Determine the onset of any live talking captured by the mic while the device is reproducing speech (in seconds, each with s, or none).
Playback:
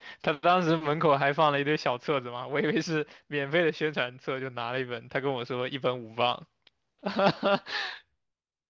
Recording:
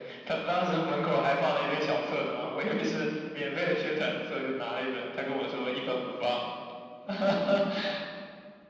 none